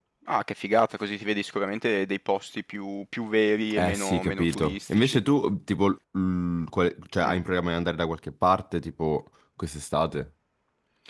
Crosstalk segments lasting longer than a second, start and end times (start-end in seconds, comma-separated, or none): 3.7-5.2